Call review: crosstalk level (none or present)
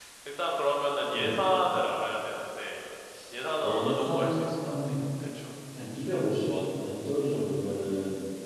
present